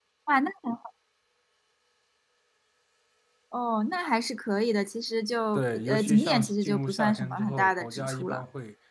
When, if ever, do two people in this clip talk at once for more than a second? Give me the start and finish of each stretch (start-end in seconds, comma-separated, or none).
5.5-8.4